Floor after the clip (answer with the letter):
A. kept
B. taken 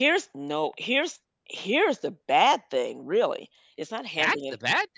B